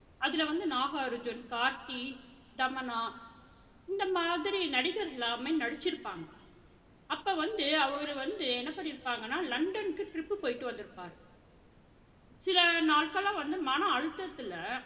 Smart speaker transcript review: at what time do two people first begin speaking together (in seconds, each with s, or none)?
none